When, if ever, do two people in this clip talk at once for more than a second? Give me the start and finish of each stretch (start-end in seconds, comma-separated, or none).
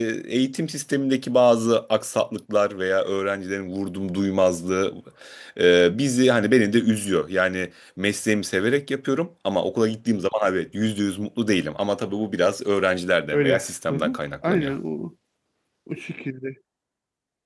13.3-14.7